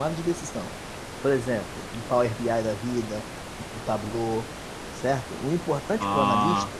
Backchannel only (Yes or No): Yes